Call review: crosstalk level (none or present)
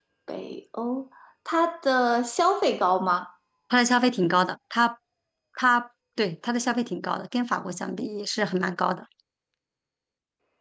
none